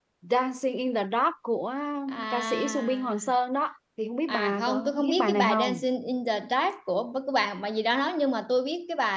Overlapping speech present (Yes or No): Yes